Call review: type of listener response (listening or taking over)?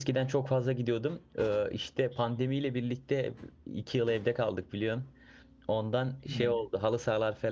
listening